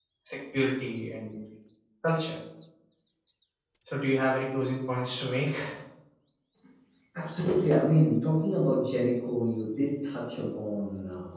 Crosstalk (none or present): none